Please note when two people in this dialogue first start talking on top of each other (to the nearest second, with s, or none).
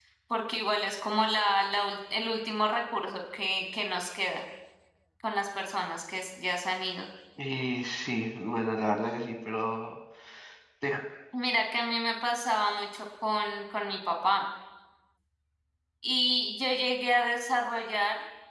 none